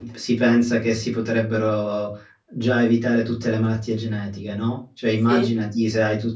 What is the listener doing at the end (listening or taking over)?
listening